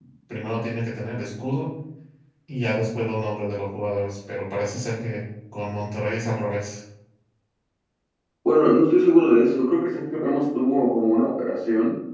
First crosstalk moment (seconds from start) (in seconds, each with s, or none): none